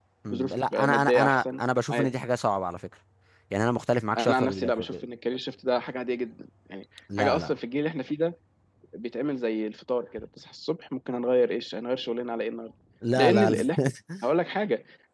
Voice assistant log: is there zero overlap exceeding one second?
No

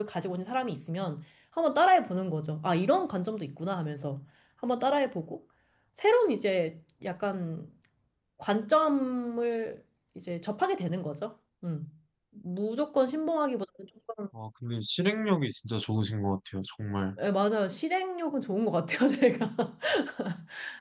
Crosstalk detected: No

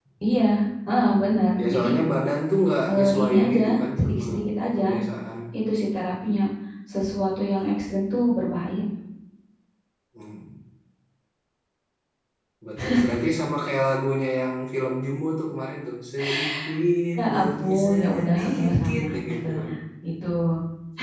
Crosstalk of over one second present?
Yes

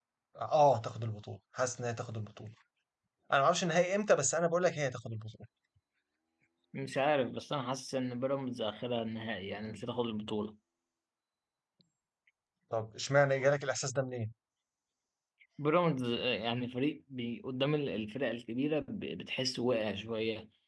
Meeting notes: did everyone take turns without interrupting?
Yes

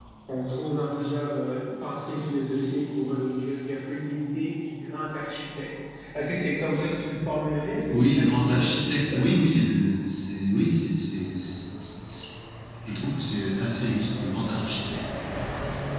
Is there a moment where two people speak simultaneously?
Yes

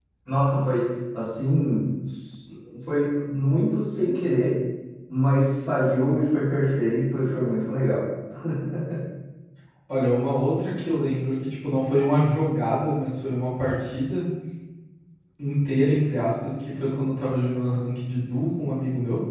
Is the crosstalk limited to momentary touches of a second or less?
Yes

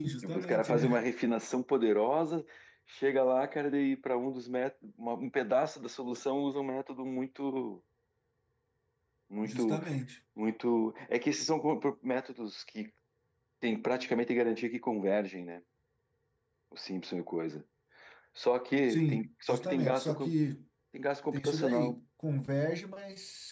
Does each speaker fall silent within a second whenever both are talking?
No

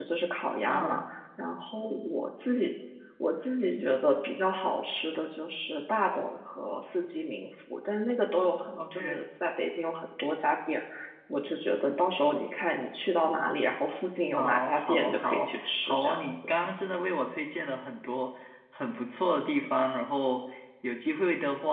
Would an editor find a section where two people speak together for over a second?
Yes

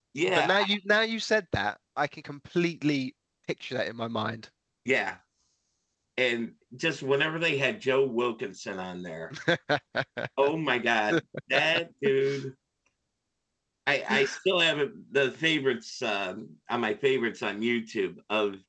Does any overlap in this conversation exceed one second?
No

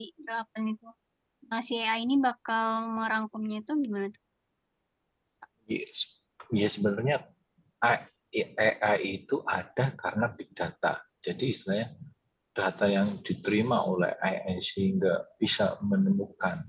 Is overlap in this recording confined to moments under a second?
Yes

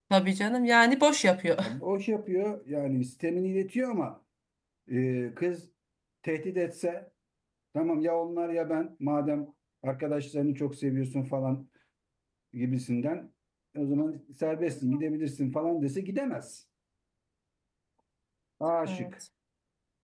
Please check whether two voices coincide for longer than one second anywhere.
No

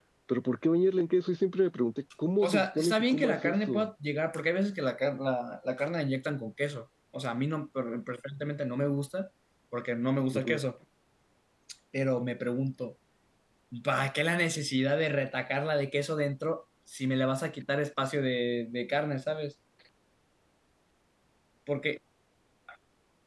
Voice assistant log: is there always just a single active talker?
No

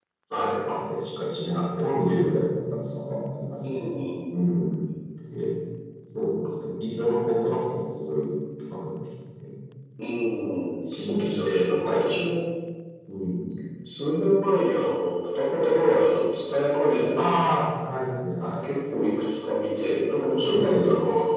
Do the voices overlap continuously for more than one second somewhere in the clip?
Yes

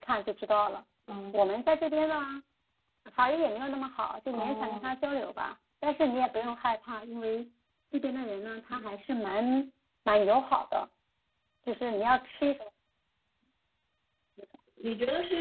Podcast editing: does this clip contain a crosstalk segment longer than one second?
No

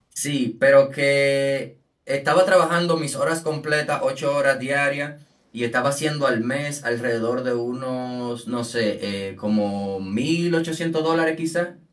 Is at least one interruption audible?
No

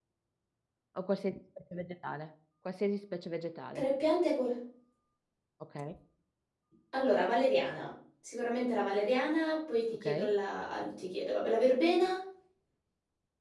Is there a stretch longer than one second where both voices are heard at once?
No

